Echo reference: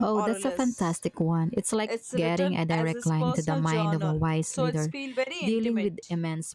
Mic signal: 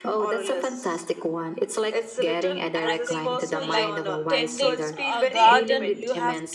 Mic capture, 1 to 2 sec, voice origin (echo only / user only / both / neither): echo only